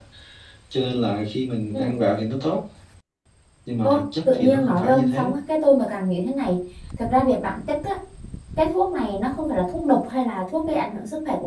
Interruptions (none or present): present